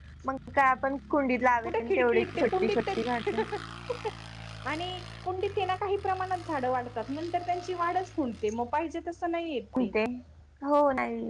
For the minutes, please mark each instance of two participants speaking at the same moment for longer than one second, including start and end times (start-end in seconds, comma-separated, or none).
1.6-3.0